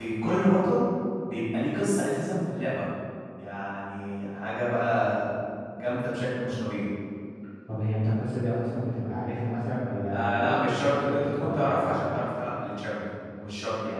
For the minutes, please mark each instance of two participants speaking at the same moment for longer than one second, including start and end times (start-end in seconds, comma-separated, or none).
10.1-11.9